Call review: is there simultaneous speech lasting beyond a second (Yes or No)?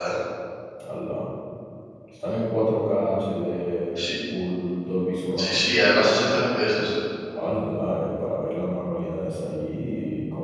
No